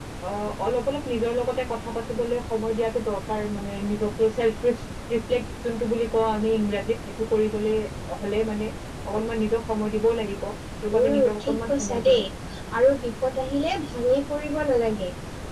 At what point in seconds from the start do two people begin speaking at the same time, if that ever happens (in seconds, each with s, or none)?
11.0 s